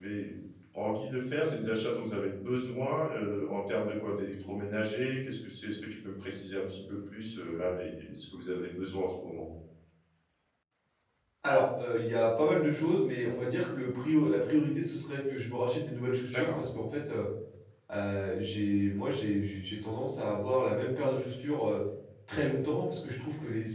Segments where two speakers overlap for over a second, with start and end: none

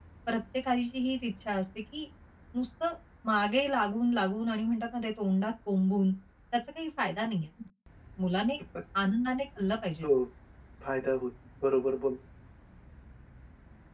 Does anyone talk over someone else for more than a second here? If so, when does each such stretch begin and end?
none

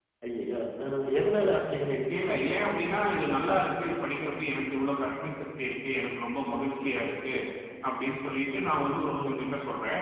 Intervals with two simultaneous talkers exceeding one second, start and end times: none

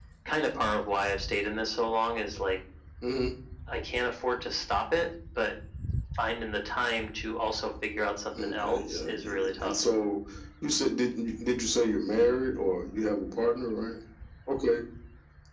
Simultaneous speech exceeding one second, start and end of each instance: 8.4-9.7

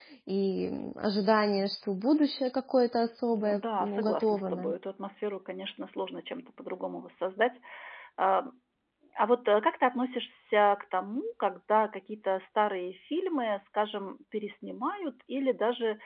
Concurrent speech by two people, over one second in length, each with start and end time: 3.4-4.7

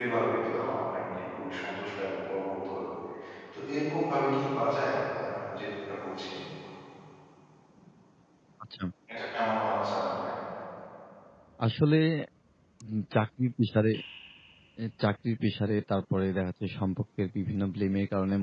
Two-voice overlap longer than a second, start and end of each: none

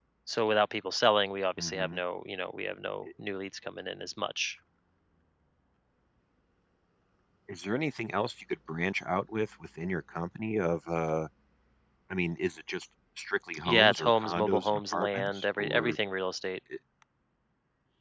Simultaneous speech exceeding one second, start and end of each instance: 13.7-16.0

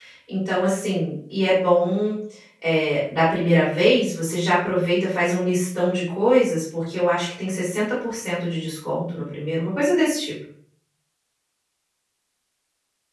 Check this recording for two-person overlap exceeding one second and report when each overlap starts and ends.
none

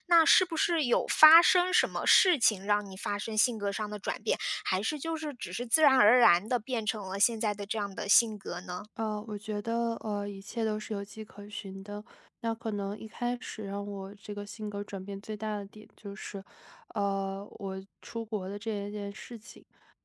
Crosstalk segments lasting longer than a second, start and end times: none

